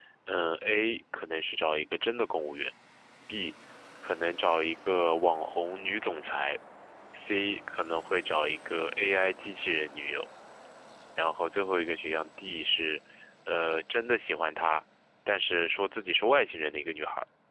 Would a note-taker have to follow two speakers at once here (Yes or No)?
No